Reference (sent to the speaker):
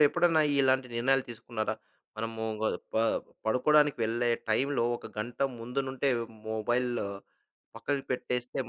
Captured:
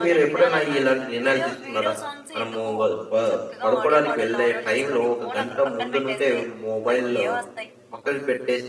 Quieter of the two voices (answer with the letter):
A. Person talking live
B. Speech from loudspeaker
A